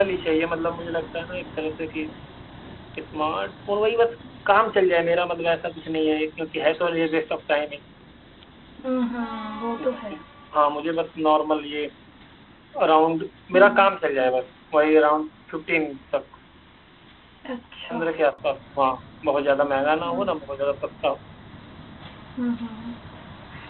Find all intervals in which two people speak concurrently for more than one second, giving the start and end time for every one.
none

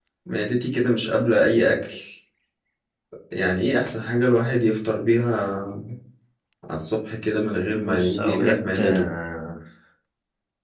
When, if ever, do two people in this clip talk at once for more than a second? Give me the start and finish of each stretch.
7.7-9.1

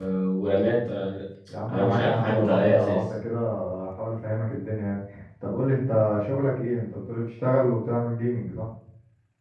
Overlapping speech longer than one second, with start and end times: 1.7-3.0

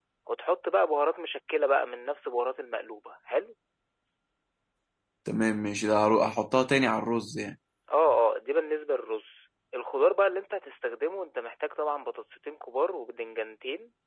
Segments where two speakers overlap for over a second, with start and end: none

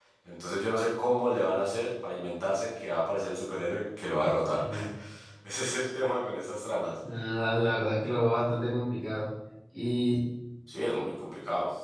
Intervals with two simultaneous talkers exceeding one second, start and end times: none

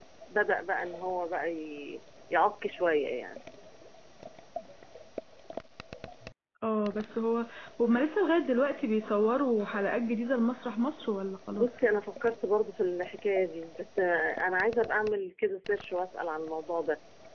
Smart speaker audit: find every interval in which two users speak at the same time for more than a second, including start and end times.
none

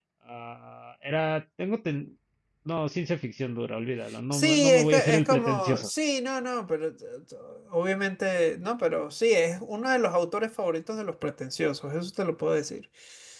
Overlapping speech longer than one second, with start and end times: 4.3-5.9

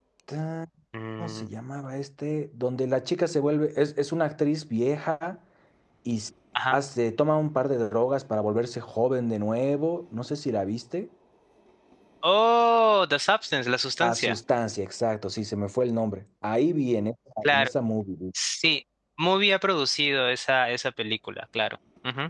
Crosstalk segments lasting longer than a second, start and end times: none

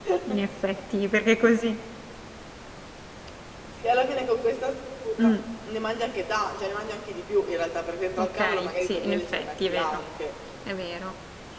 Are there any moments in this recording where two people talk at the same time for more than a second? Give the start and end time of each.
8.2-10.0

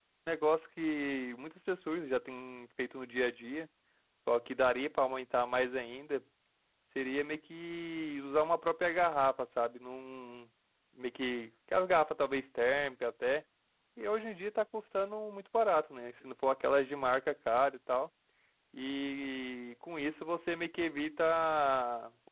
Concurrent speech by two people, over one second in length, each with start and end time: none

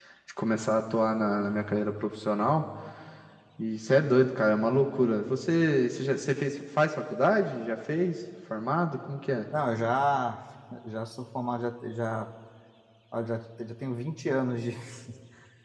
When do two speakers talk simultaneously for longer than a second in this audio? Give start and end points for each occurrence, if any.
none

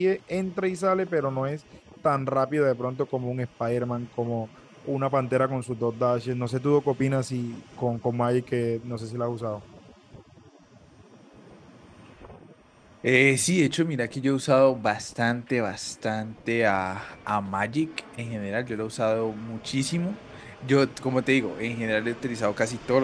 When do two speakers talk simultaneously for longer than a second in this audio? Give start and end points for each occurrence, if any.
none

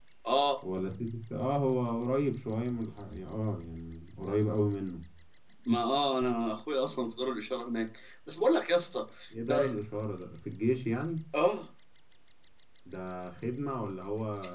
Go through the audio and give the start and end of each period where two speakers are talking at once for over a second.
none

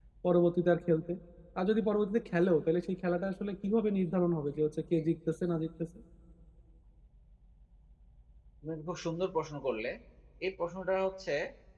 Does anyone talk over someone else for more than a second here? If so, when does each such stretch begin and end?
none

